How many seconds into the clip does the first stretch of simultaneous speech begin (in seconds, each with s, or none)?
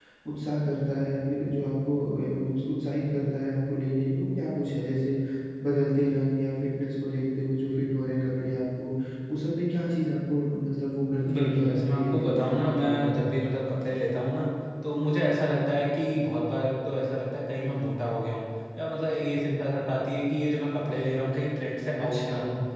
11.3 s